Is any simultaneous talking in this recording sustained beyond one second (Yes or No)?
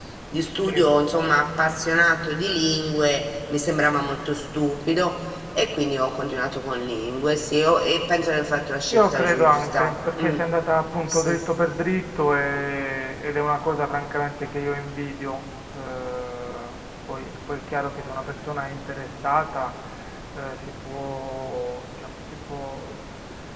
Yes